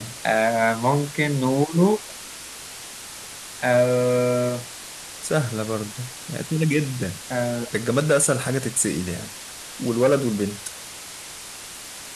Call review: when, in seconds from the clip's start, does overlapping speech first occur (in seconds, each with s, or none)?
none